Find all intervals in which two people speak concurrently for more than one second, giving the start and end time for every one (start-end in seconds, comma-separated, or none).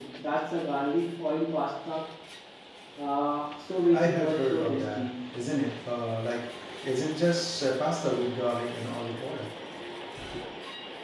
3.9-5.1